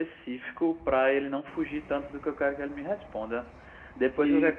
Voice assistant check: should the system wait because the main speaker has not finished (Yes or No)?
Yes